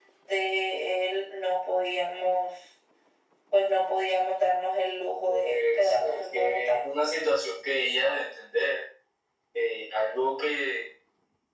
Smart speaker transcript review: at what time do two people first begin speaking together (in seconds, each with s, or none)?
5.3 s